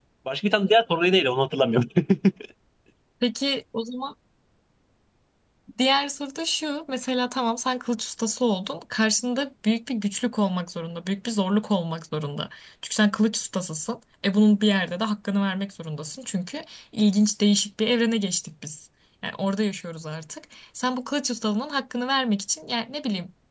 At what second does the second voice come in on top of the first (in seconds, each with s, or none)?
none